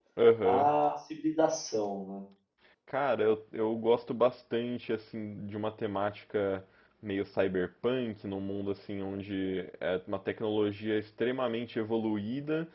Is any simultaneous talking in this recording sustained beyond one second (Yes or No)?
No